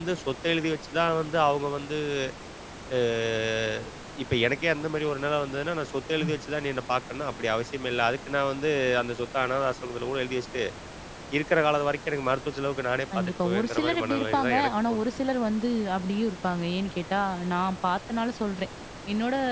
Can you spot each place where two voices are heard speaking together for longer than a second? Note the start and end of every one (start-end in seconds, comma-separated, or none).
13.2-15.0